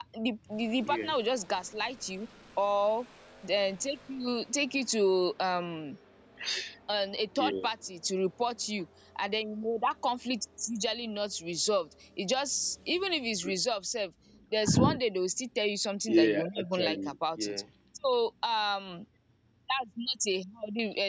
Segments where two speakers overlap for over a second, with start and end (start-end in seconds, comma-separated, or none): 16.1-17.6